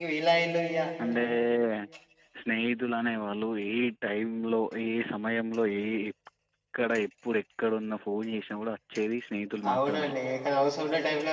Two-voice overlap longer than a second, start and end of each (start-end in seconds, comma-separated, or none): none